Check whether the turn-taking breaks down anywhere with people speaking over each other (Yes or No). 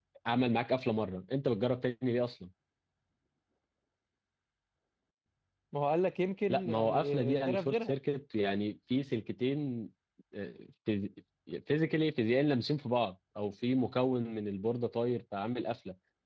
Yes